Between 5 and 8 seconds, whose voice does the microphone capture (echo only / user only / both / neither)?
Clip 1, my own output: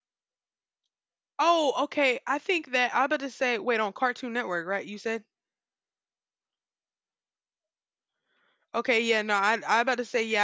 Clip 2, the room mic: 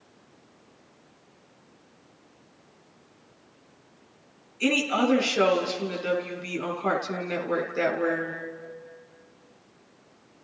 user only